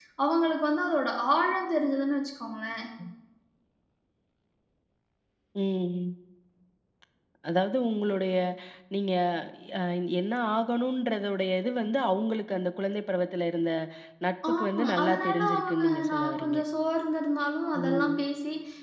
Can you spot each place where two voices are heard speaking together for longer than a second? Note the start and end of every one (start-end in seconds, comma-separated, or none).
14.5-16.6